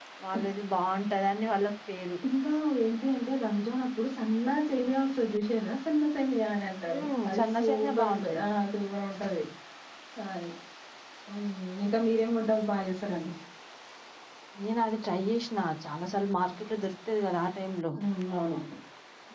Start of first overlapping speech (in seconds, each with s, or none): 6.9 s